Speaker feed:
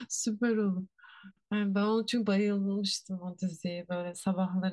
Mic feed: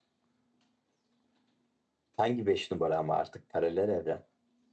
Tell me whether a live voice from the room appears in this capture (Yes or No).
Yes